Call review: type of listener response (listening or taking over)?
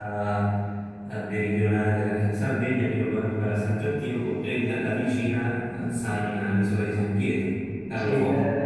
taking over